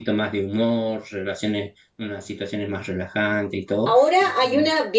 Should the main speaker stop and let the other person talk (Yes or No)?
Yes